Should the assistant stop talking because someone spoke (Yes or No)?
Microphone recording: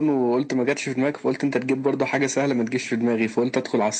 No